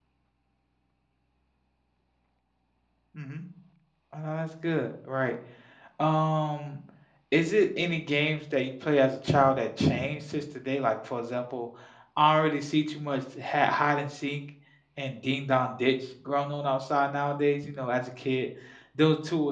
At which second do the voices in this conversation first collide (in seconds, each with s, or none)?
none